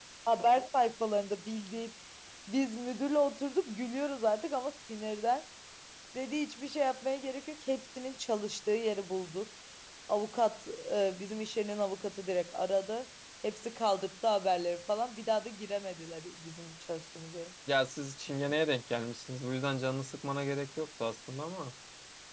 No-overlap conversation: Yes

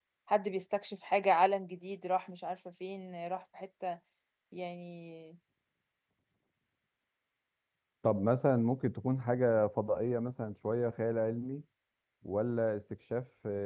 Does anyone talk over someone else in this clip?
No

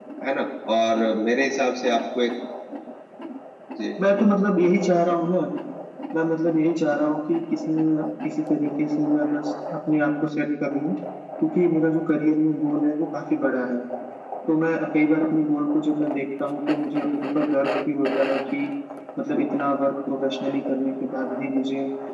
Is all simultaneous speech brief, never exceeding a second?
Yes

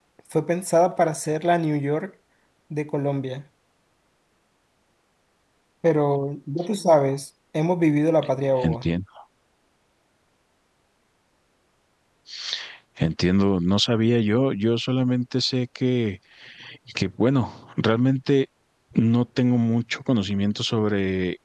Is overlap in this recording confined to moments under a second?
Yes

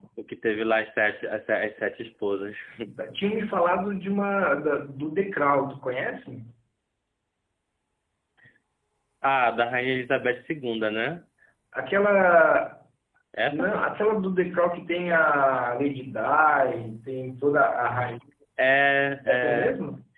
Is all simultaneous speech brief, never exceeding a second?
Yes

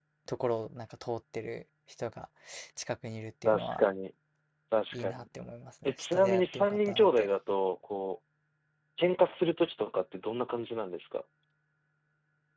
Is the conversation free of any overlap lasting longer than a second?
No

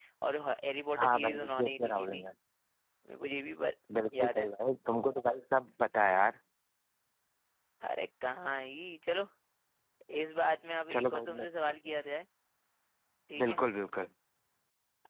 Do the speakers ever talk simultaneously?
Yes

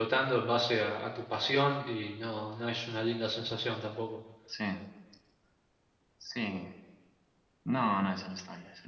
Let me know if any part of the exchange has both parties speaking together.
No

